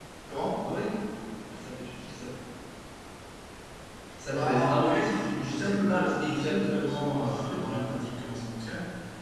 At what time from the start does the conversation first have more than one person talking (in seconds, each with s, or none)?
4.3 s